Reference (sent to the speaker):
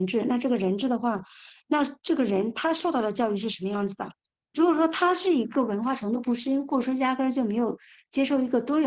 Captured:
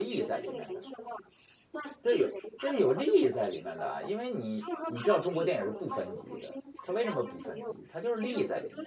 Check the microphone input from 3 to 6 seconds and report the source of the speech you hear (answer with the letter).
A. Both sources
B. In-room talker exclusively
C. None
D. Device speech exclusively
A